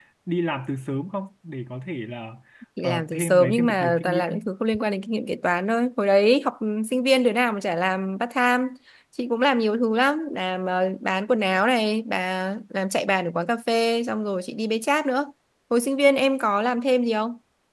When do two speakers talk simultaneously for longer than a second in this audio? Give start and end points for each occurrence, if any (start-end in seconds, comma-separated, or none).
2.8-4.4